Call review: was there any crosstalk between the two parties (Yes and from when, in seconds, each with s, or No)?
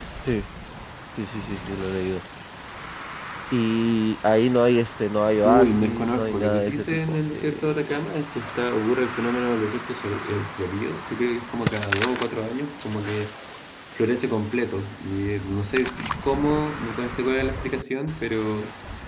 Yes, from 5.4 s